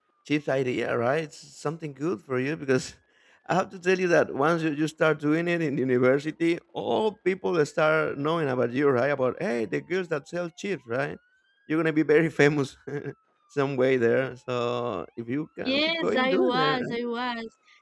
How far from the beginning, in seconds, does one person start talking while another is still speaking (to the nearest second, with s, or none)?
16 s